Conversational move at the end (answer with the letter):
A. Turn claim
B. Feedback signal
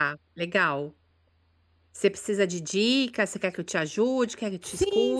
A